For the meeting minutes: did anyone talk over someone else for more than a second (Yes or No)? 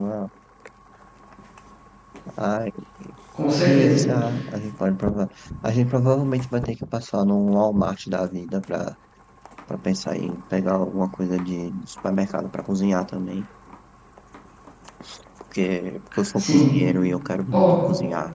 No